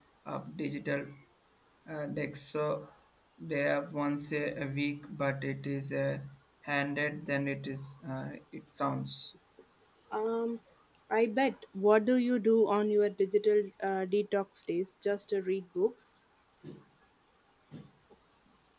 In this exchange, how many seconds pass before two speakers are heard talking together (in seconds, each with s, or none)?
none